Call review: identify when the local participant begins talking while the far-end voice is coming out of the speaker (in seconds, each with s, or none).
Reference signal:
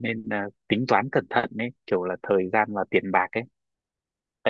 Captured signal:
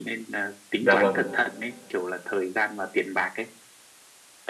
0.8 s